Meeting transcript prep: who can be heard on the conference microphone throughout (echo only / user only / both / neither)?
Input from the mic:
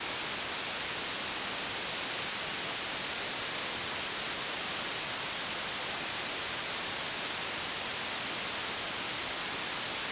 neither